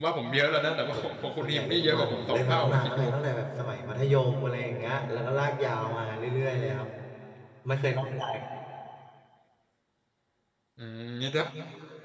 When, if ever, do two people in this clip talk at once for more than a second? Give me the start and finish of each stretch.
0.9-3.0

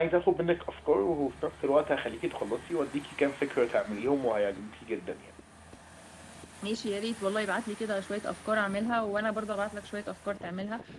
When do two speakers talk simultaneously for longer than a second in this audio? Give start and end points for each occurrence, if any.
none

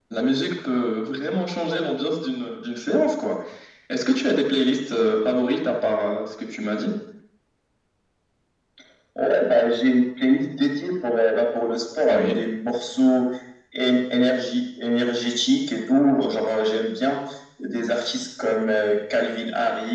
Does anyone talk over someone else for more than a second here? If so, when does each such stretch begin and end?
none

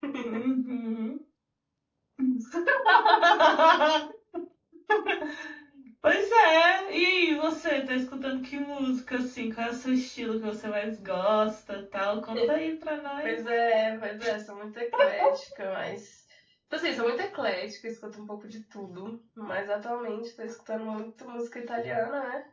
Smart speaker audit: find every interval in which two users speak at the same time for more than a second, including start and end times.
none

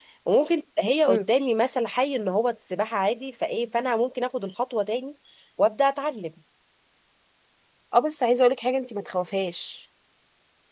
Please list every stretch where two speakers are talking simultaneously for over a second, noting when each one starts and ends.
none

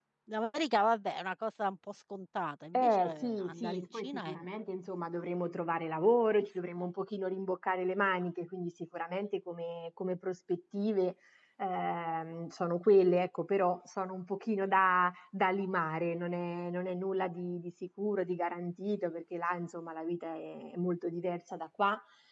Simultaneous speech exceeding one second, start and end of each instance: 2.8-4.4

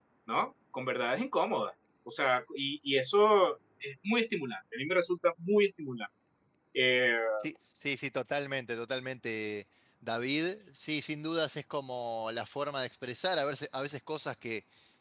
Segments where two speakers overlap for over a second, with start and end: none

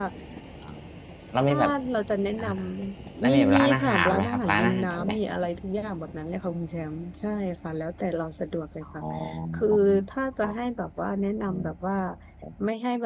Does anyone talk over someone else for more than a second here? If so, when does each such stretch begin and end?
3.2-5.1

